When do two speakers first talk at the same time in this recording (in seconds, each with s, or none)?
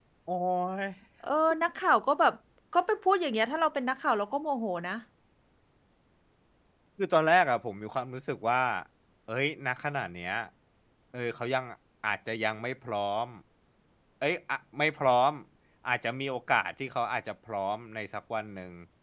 none